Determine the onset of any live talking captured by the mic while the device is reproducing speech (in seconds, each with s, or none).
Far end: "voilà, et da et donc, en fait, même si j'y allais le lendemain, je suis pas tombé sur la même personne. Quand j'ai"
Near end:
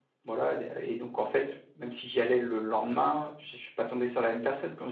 none